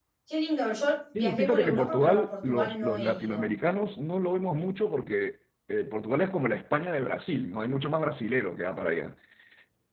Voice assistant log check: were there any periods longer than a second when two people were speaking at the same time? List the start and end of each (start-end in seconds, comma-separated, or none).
1.2-3.5